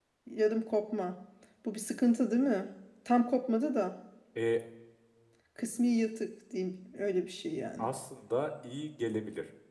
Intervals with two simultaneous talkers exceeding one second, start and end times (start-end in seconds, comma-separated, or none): none